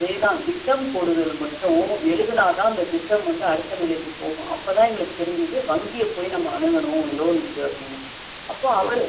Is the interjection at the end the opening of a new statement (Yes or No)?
No